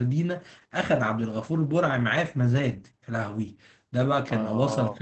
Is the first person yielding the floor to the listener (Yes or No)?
No